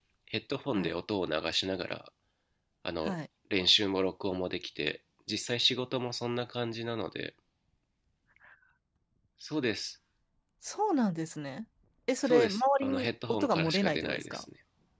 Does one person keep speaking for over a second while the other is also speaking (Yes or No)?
Yes